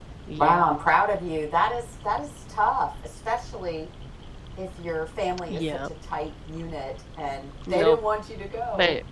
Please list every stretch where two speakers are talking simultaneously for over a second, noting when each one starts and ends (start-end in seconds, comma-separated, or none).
none